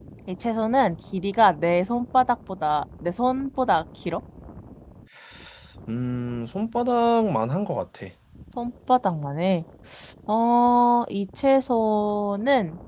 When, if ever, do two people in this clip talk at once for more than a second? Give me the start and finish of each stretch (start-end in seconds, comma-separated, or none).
none